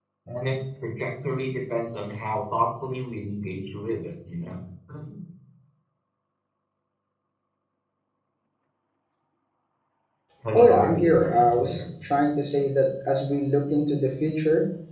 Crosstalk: present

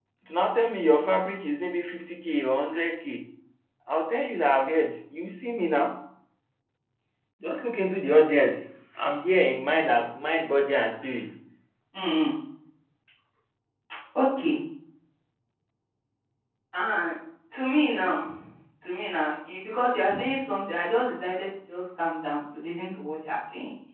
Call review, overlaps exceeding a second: none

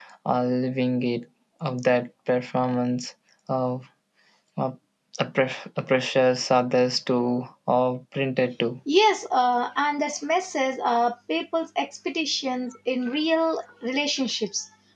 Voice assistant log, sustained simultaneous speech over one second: none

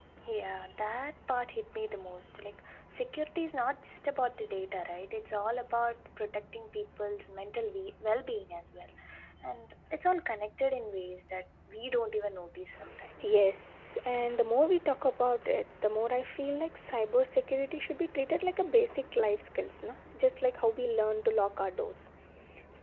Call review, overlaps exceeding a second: none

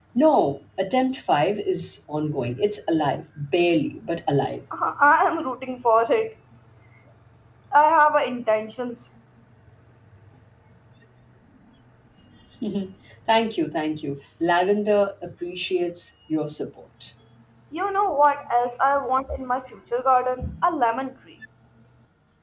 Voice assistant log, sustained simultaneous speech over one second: none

